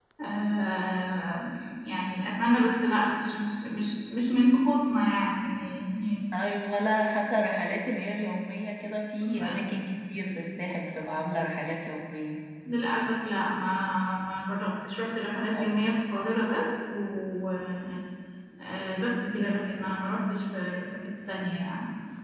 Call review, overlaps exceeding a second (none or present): none